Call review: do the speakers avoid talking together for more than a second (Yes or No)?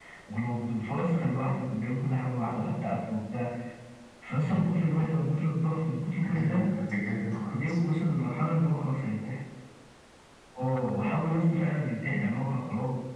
Yes